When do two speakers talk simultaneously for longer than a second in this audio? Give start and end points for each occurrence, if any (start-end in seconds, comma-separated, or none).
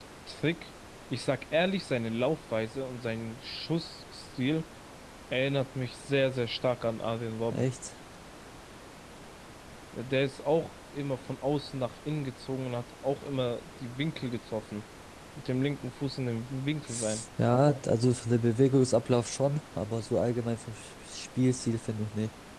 none